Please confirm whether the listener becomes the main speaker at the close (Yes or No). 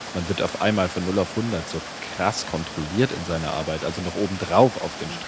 No